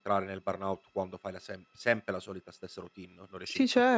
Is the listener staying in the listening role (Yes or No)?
No